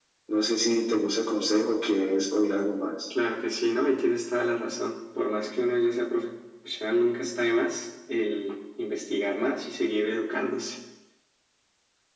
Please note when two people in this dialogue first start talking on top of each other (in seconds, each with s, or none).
none